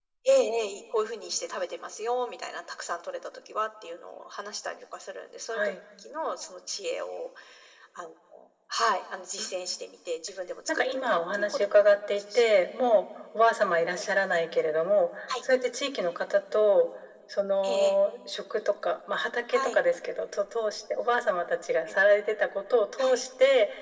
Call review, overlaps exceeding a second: present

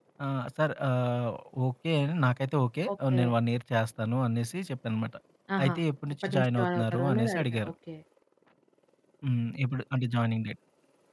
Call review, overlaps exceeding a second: present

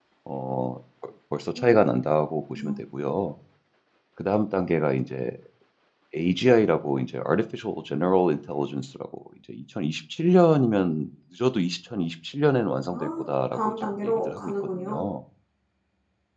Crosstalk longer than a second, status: present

